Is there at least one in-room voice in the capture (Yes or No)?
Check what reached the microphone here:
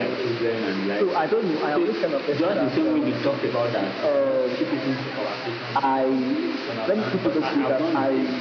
No